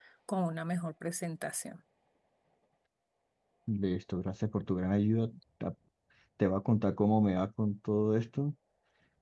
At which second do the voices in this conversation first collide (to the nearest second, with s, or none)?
none